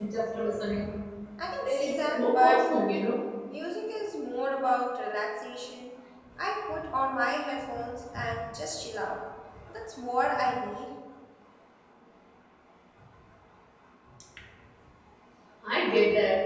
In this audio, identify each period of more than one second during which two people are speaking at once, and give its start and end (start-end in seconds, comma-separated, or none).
1.6-3.1